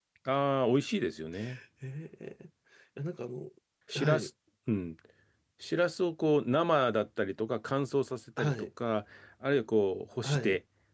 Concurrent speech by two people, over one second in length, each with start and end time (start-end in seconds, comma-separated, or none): none